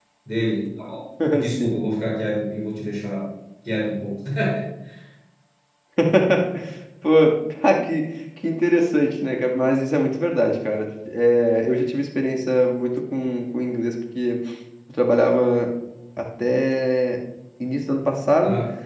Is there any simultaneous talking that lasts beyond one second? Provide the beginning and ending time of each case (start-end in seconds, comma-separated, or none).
none